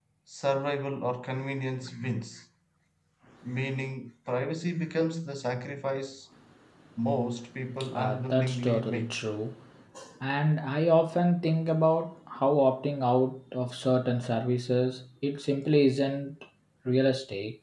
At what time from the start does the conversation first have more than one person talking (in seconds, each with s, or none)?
7.8 s